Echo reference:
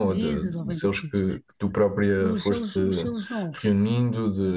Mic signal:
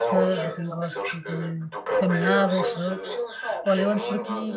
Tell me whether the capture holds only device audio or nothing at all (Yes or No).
No